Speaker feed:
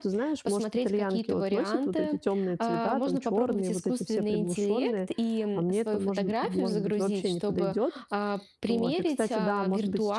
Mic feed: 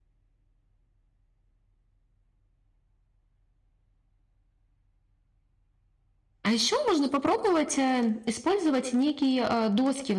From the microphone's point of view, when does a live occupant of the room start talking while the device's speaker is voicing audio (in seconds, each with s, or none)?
6.4 s